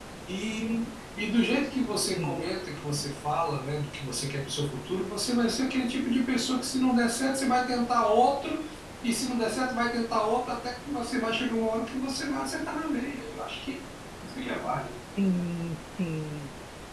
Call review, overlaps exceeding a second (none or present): none